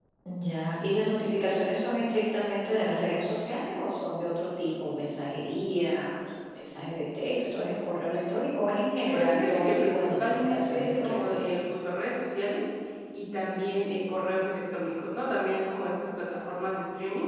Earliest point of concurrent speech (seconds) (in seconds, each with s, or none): 9.1 s